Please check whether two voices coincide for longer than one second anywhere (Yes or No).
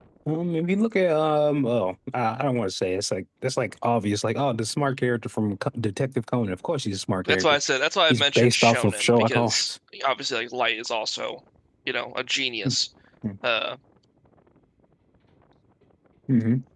Yes